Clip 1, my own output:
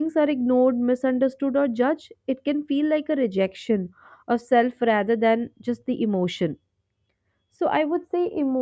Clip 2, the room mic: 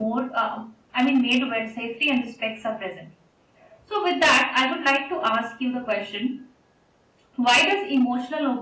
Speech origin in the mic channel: user only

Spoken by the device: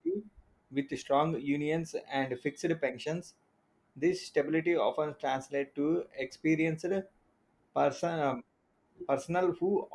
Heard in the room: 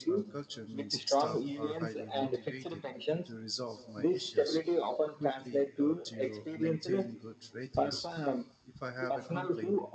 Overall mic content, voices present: both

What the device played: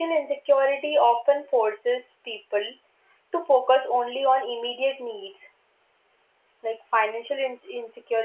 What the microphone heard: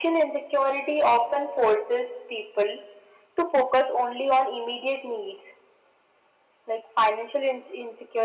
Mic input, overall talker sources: echo only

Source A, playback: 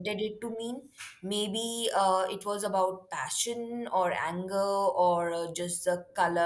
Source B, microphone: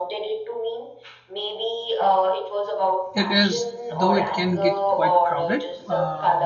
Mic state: both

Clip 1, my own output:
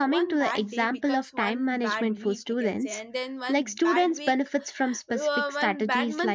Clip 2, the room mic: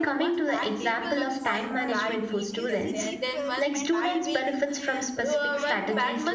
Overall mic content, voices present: both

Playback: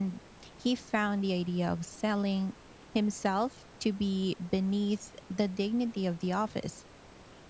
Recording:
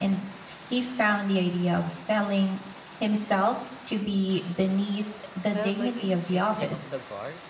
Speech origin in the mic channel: both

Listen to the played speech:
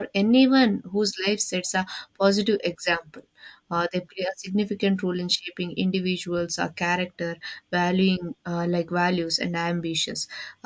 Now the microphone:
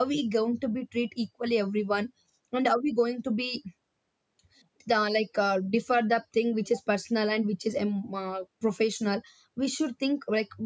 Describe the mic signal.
user only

